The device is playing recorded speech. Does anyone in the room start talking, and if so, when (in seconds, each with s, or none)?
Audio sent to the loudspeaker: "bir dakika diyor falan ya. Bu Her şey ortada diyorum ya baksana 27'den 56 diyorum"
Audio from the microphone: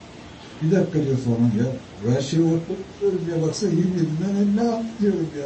none